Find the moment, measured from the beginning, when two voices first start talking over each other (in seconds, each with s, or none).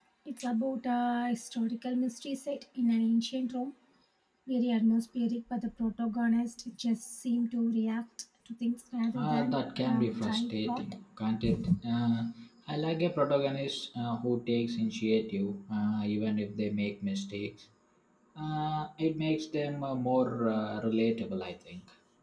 9.2 s